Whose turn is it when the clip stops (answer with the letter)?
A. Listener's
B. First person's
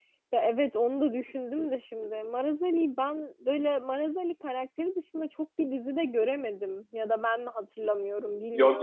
A